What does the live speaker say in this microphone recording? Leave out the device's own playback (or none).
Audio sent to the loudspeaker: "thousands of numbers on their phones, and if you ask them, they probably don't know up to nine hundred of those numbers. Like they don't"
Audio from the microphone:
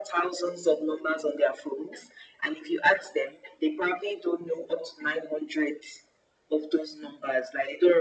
none